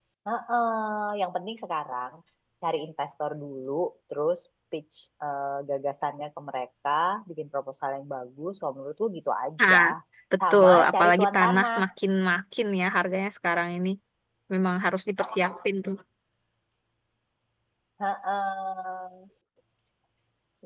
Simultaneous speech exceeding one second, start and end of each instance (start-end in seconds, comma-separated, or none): 10.5-11.8